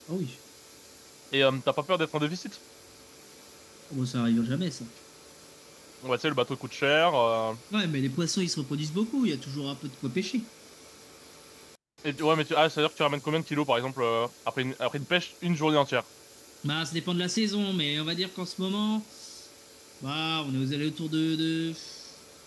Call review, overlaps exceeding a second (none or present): none